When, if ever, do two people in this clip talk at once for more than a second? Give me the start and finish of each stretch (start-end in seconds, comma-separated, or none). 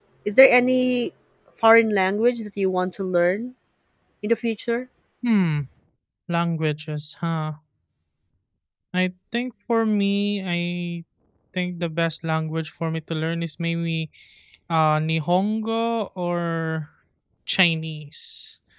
none